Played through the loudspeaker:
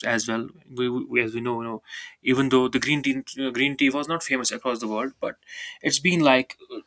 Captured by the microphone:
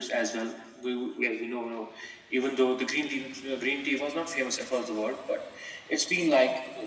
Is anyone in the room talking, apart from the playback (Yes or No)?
No